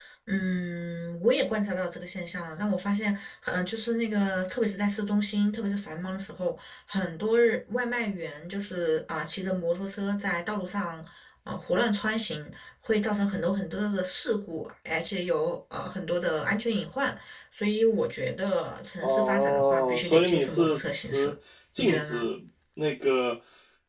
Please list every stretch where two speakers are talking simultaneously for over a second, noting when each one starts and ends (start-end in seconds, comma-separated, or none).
19.0-21.3